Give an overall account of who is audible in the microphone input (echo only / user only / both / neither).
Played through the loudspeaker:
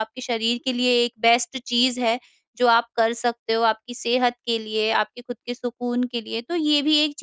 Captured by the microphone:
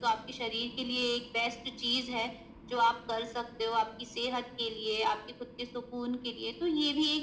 echo only